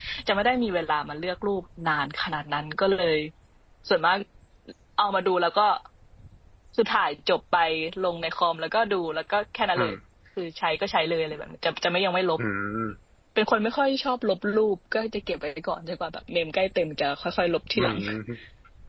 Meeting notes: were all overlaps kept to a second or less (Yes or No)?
Yes